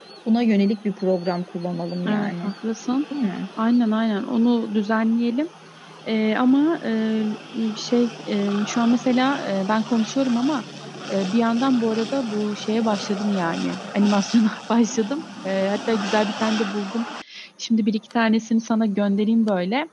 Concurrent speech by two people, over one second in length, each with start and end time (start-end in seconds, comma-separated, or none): none